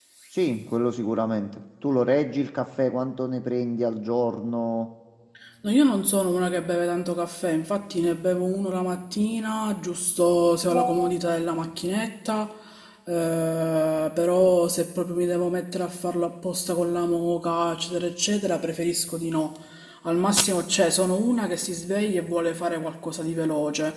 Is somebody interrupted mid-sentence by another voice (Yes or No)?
No